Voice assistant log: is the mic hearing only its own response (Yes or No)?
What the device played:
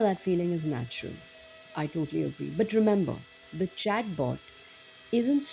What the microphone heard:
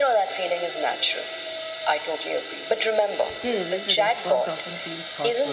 No